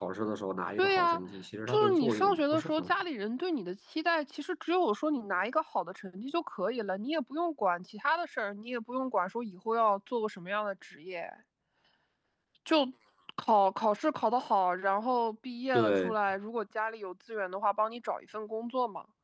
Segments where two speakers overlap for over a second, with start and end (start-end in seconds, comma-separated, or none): 1.7-2.9